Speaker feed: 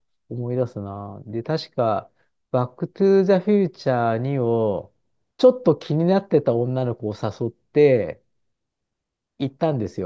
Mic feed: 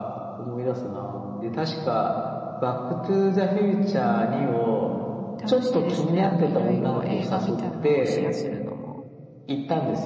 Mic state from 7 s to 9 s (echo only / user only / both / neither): both